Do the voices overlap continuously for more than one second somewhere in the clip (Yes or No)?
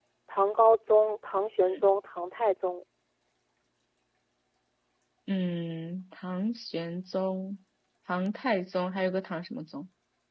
No